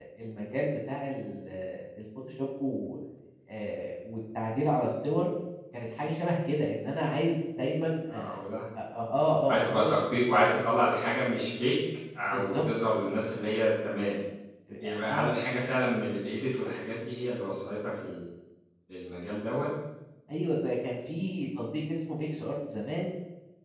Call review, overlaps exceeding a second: none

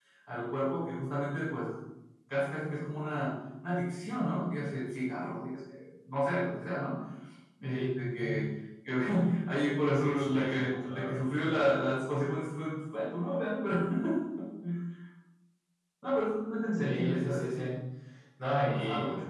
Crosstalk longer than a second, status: present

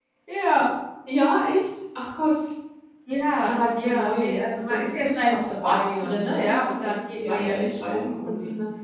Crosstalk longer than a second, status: present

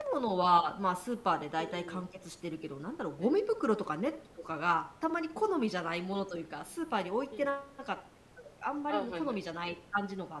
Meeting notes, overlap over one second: none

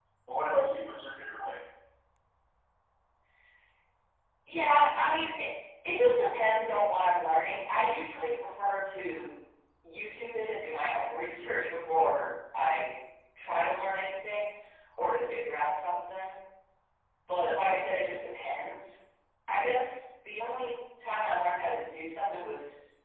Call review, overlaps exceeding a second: none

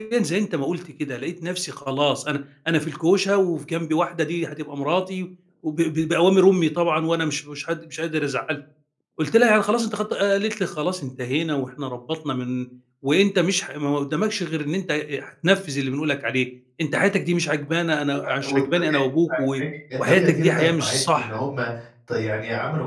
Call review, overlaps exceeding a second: present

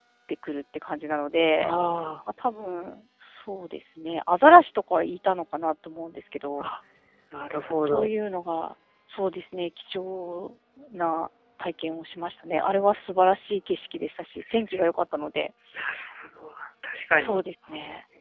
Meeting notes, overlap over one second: none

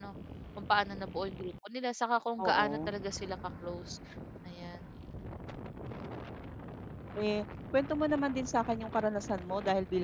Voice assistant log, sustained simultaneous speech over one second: none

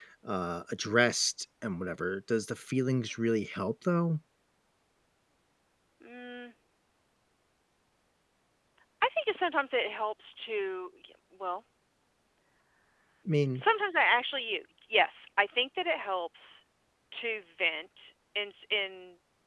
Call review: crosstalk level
none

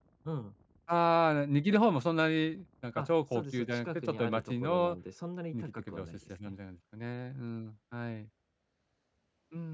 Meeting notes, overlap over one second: present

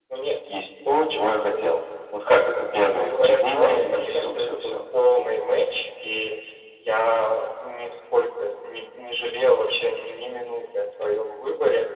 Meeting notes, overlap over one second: present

